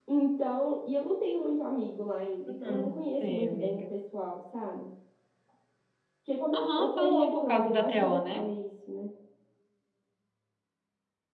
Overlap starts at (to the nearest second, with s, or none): 2 s